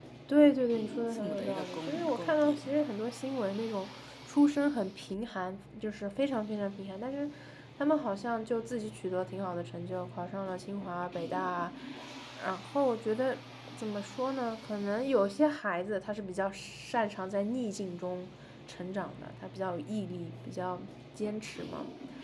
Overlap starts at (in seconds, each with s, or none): 1.1 s